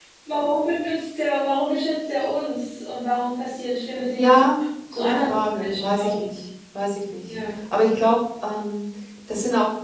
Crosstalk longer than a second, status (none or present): present